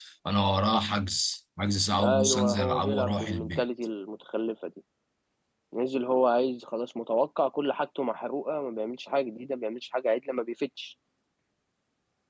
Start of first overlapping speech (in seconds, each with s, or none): 2.0 s